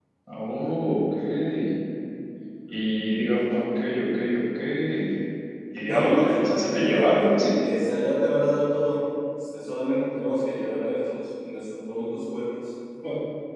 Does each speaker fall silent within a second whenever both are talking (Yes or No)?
No